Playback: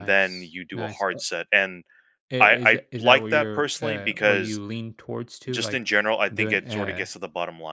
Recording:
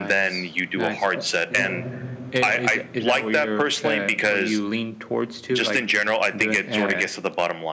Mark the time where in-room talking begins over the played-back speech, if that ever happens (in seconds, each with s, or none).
1.5 s